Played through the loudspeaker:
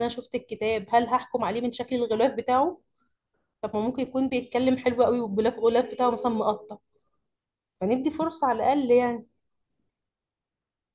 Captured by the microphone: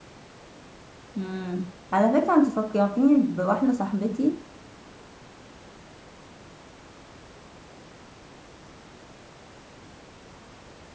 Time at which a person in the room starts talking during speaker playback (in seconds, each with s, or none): 1.1 s